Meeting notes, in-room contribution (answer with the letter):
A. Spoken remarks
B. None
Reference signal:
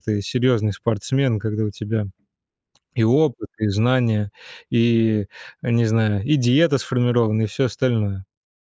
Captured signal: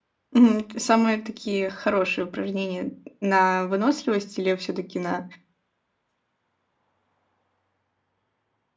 A